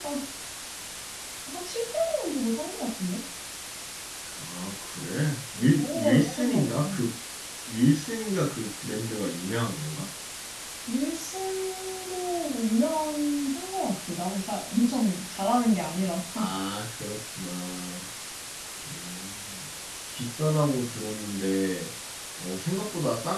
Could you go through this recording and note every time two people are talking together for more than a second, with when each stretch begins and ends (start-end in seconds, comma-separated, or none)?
5.6-6.9